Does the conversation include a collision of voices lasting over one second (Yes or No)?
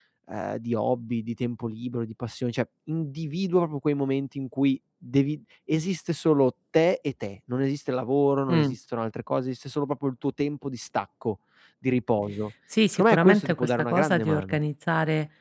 Yes